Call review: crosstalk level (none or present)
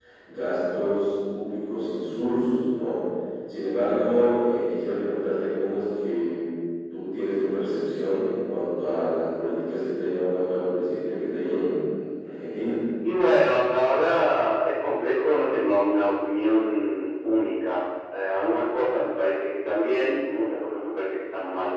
none